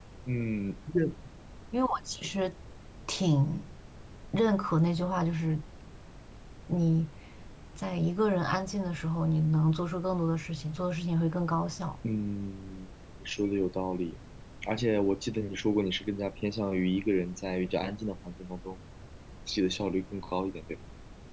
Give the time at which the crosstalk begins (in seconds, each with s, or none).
none